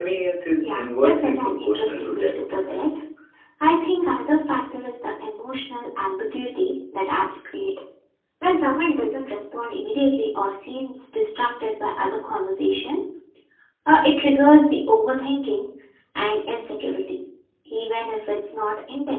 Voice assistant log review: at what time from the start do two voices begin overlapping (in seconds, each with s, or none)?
0.6 s